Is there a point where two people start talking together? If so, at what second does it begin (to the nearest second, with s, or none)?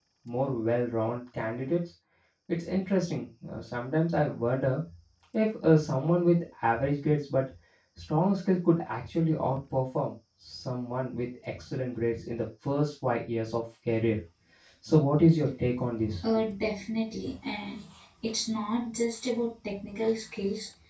none